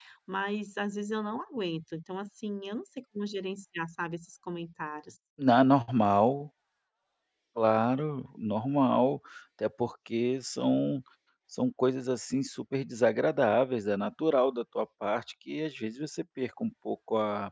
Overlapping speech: No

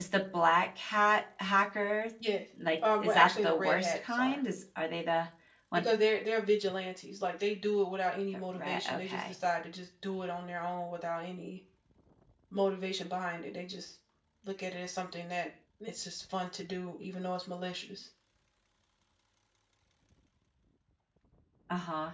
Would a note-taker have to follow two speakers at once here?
Yes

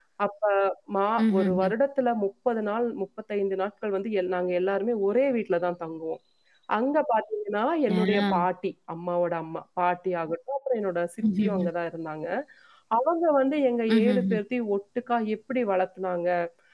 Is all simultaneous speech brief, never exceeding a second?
Yes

